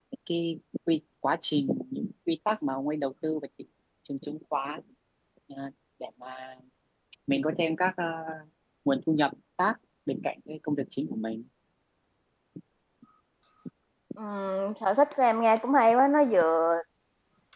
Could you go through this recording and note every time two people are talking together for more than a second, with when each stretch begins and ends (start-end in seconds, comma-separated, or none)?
none